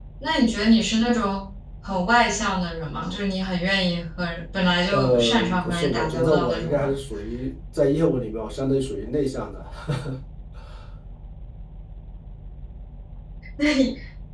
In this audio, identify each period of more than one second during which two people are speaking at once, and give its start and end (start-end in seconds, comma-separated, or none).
4.9-6.9